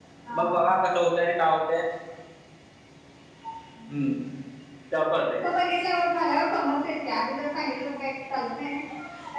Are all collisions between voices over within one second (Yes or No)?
Yes